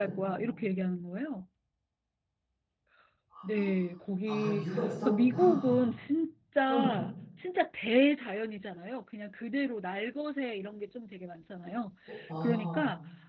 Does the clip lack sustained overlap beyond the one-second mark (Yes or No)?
No